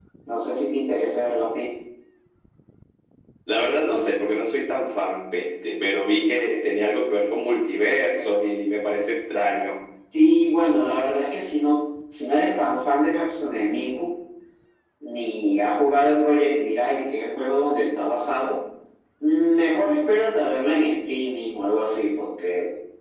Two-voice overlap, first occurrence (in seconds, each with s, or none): none